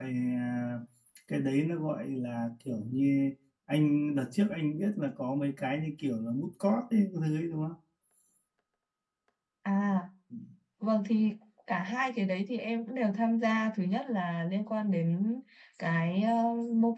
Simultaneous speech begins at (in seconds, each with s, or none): none